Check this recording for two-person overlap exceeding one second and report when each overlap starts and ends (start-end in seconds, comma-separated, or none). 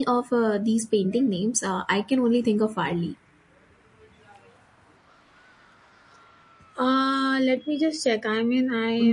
none